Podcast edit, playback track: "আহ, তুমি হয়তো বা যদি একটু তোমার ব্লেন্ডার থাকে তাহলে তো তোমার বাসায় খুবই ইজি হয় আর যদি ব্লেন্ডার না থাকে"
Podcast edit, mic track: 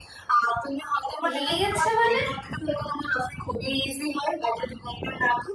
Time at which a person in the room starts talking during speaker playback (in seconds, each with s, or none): 1.3 s